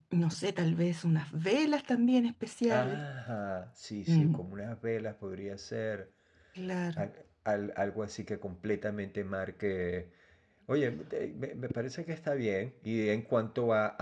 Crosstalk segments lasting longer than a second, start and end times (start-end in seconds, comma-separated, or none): none